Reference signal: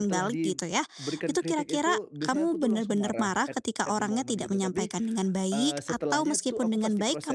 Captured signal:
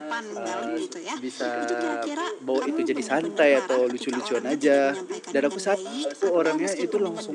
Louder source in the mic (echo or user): user